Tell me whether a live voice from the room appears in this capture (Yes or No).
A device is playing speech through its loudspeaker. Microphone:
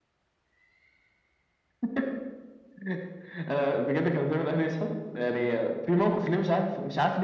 No